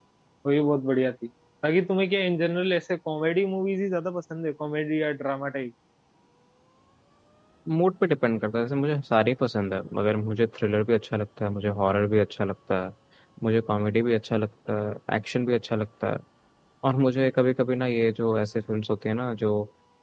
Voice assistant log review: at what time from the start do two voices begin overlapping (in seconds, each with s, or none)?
none